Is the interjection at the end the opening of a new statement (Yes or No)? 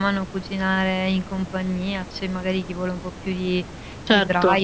No